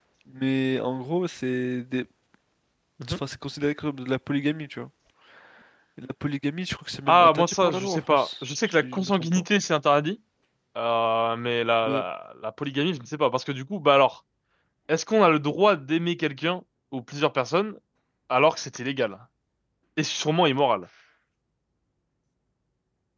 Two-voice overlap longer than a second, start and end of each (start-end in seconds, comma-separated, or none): 7.1-9.4